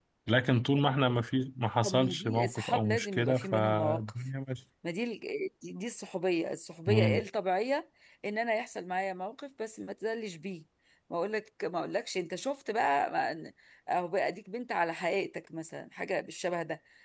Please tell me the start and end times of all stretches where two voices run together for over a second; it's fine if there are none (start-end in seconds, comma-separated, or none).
1.8-4.3